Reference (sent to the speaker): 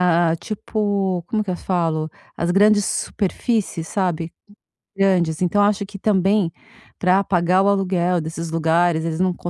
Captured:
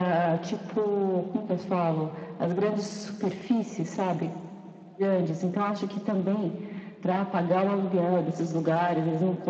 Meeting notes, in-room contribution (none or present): none